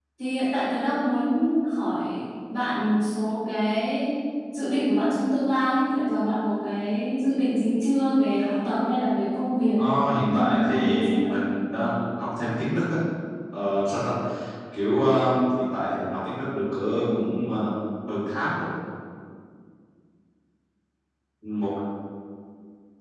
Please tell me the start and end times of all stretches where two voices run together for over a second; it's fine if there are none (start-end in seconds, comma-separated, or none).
10.1-11.4